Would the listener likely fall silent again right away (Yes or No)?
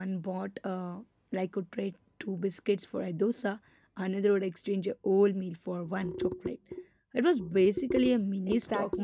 No